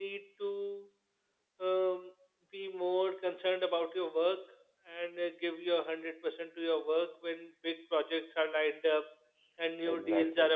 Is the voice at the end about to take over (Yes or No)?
No